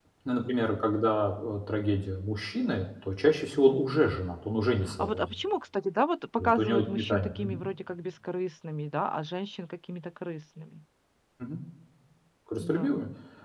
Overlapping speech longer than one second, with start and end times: 6.4-7.6

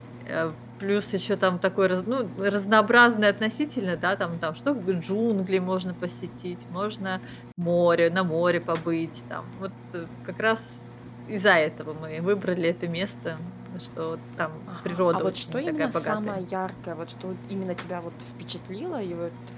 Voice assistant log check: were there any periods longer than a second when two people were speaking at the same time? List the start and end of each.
14.7-16.4

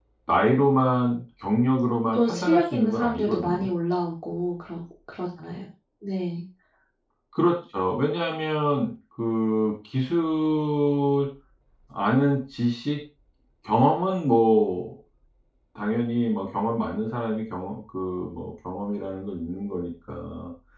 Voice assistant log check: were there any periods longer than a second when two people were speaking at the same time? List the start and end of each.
2.1-3.7

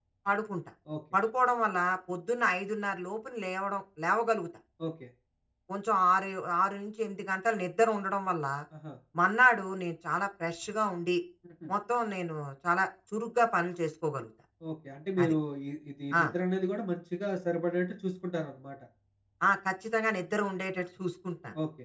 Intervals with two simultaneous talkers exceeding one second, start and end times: none

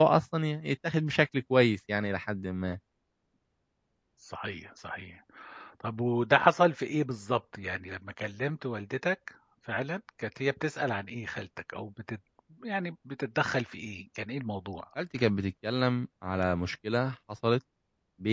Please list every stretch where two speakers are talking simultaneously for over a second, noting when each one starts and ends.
none

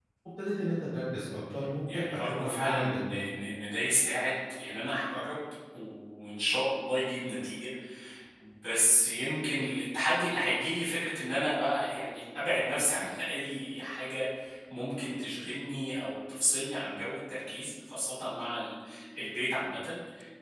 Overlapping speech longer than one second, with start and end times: 1.9-3.3

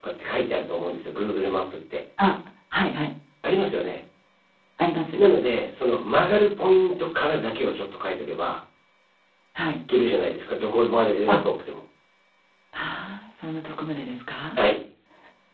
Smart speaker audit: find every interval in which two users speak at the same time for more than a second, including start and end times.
none

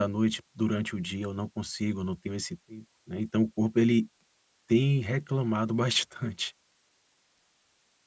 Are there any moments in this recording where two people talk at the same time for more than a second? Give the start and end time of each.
none

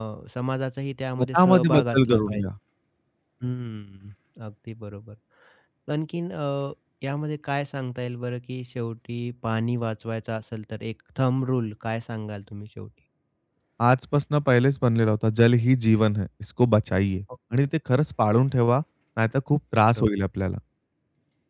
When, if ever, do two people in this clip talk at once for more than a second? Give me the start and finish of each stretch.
1.2-2.4

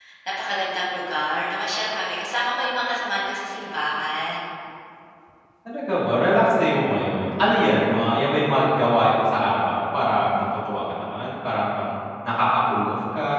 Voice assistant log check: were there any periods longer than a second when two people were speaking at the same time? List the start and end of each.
none

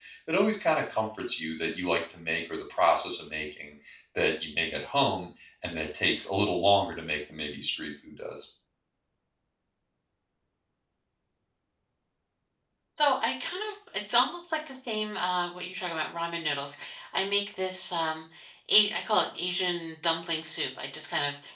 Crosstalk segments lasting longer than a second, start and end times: none

